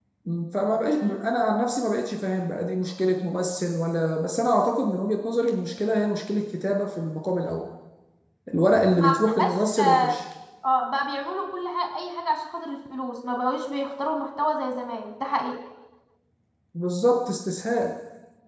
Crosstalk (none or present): present